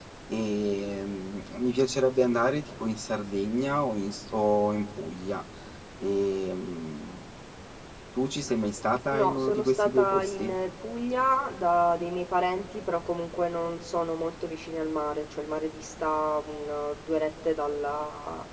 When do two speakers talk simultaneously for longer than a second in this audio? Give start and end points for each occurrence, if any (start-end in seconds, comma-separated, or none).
9.1-10.6